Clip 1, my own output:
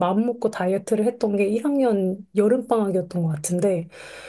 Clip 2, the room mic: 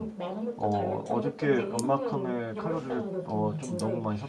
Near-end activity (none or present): present